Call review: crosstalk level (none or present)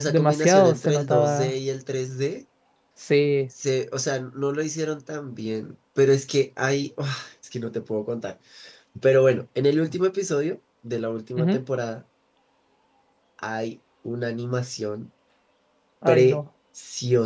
present